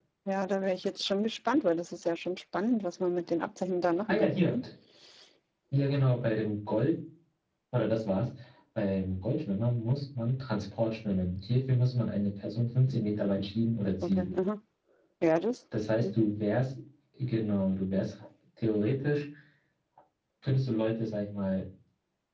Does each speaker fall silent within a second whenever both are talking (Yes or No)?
Yes